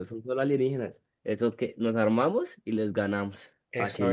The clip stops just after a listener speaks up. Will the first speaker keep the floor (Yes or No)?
No